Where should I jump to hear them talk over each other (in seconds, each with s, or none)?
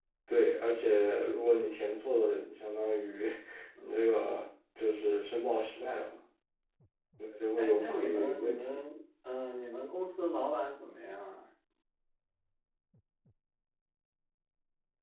7.6 s